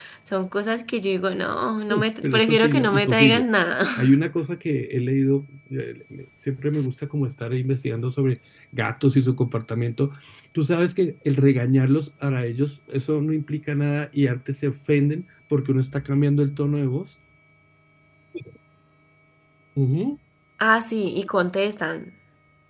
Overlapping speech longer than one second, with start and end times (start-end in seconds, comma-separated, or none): 1.9-3.4